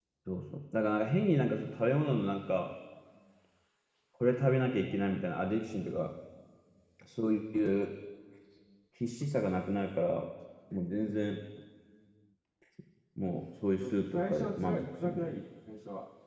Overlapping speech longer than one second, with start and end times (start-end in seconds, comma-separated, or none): 13.8-15.4